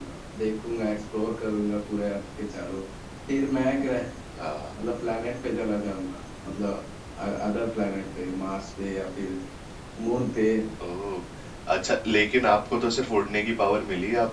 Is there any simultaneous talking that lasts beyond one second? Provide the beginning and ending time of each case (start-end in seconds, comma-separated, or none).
none